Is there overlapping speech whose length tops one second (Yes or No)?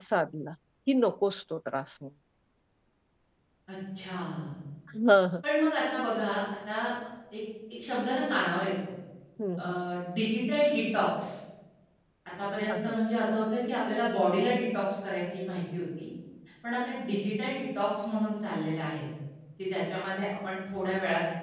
No